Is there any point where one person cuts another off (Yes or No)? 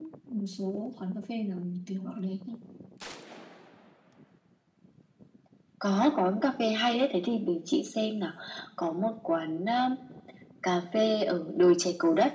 No